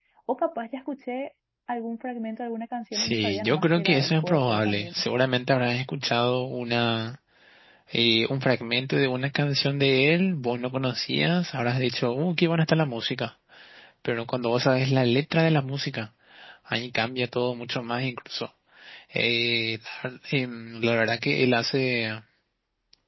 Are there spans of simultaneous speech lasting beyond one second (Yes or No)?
Yes